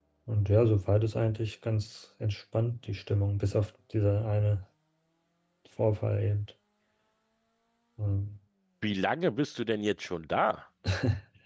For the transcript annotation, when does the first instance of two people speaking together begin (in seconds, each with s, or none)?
none